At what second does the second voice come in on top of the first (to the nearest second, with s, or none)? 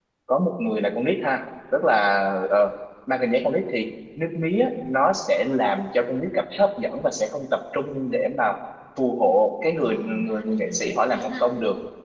10 s